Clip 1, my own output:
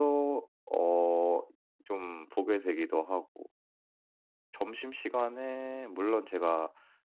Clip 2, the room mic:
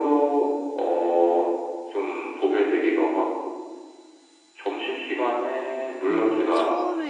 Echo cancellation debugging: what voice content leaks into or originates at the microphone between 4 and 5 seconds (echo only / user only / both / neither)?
echo only